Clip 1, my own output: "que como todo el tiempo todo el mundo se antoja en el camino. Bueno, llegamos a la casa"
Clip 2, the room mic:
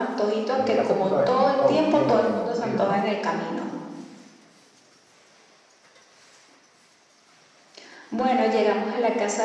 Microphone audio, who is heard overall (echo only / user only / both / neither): both